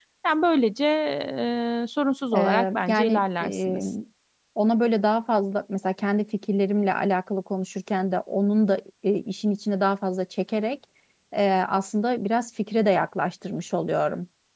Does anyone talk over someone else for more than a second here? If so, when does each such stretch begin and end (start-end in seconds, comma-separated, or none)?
2.4-3.8